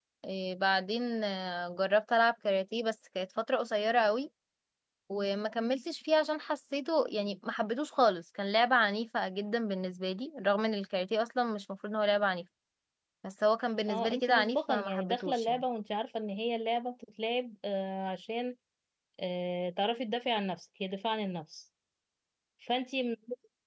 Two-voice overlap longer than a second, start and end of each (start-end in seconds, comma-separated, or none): 13.9-15.6